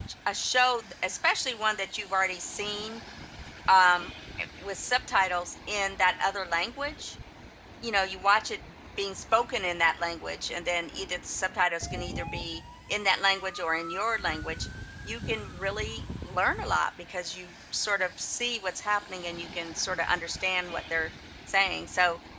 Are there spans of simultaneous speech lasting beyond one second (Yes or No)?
No